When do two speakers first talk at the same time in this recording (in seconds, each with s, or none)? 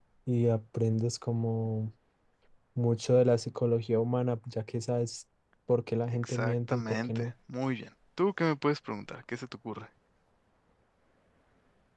6.1 s